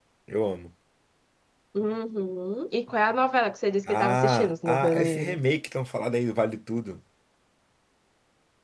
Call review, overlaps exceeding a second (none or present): present